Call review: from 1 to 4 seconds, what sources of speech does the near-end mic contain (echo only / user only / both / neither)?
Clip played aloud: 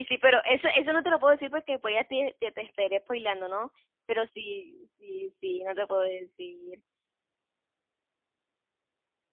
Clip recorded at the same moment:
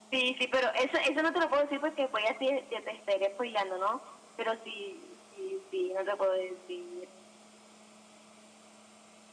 echo only